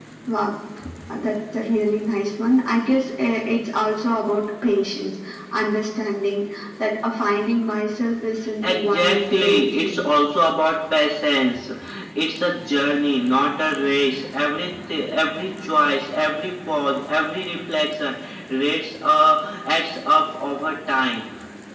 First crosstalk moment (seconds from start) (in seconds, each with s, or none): 8.5 s